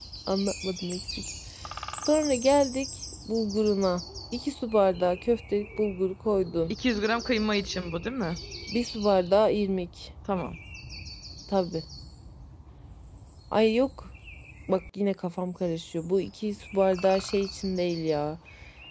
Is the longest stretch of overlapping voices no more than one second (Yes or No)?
Yes